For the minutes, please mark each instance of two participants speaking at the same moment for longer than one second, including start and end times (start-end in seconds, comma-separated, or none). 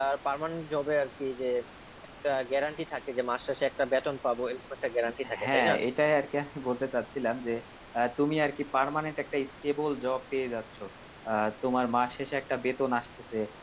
none